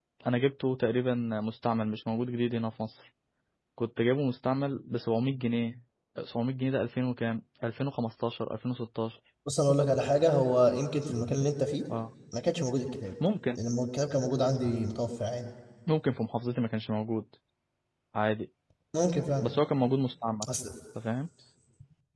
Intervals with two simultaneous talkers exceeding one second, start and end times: none

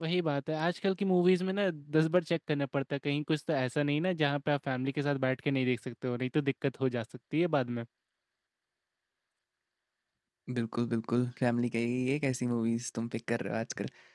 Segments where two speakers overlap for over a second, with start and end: none

